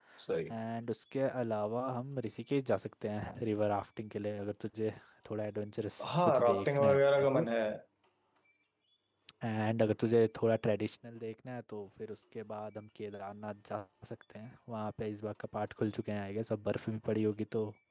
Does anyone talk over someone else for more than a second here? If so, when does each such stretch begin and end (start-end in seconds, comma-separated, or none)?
6.1-7.5